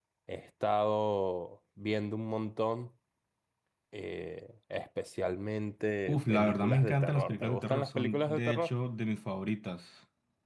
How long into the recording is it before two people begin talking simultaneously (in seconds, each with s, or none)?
6.1 s